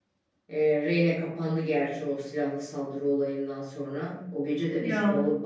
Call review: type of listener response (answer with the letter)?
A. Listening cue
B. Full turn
A